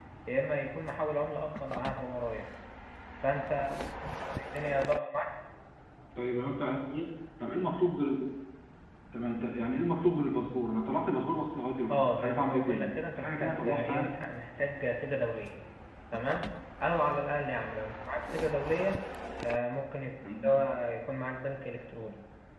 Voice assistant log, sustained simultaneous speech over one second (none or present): present